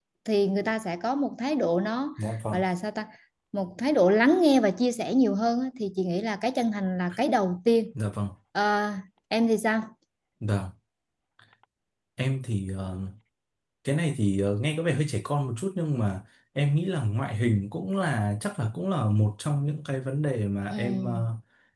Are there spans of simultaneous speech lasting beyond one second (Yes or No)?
No